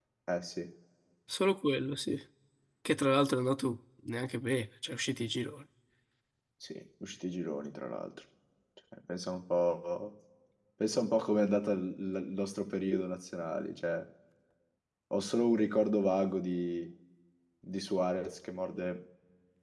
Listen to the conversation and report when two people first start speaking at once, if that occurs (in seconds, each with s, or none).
none